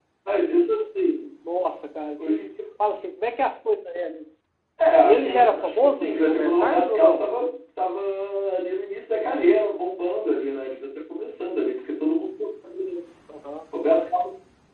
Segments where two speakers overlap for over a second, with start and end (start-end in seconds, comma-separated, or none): 5.0-7.2